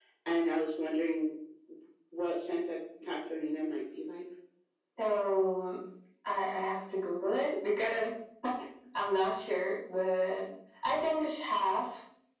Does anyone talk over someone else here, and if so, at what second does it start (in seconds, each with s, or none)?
none